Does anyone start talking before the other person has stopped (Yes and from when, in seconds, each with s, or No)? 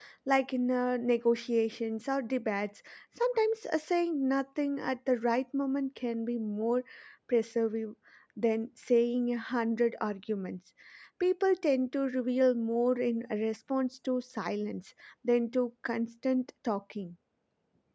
No